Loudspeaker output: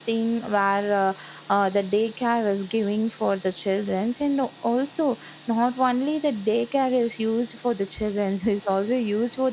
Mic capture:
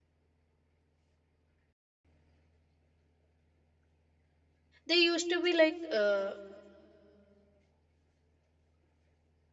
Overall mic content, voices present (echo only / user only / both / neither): user only